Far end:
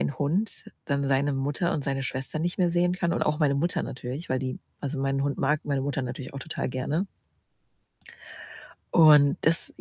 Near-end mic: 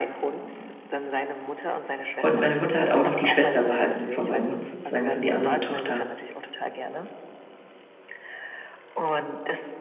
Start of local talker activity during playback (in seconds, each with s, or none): 2.2 s